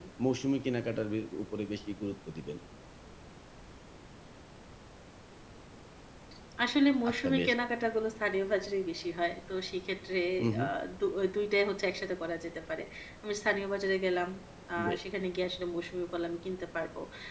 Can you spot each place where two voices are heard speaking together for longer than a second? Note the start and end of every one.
none

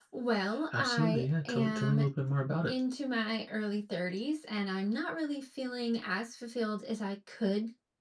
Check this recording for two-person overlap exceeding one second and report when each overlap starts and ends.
0.7-2.0

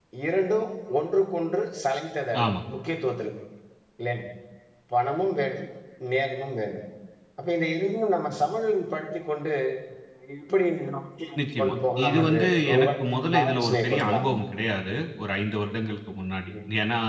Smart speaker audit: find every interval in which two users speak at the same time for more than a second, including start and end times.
11.6-14.3

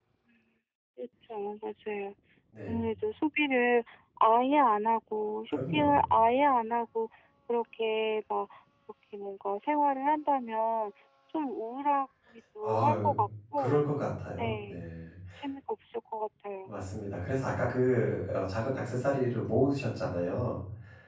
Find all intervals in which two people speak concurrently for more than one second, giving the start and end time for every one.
none

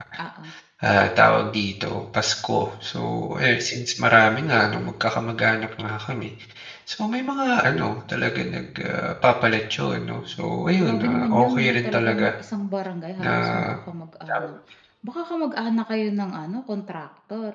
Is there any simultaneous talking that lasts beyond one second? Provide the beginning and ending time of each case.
10.8-12.3

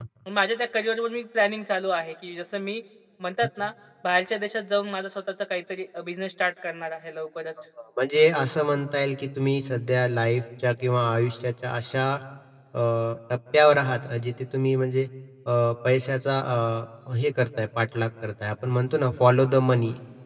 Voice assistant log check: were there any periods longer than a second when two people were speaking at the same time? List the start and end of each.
none

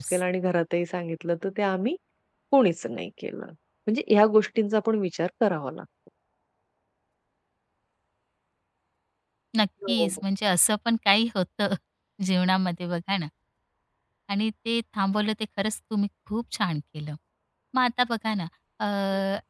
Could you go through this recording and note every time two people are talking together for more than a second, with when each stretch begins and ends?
none

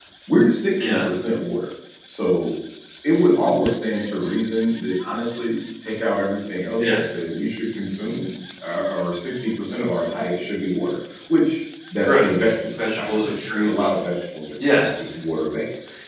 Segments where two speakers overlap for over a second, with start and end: 12.0-13.9

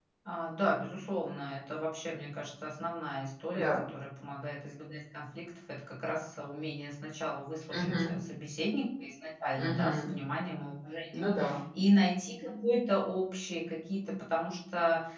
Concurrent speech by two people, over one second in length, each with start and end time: none

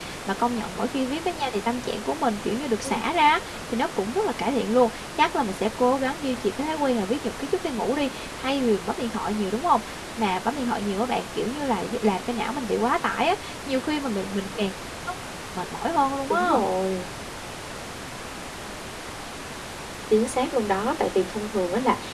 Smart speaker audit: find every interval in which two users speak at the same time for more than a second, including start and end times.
none

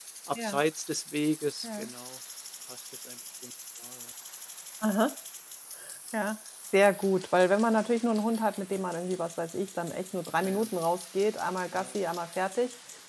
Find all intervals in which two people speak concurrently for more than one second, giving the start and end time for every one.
none

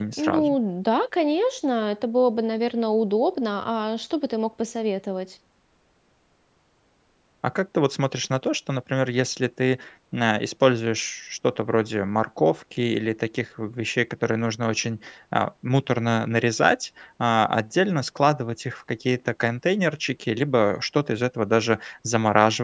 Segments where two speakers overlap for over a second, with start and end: none

